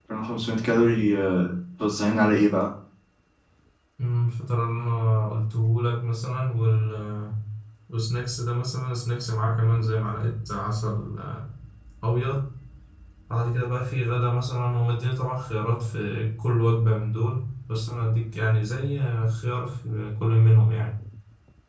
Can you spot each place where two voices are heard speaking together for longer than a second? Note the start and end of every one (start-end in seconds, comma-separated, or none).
none